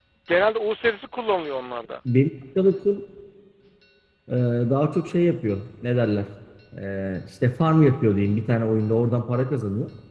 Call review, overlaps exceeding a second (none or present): none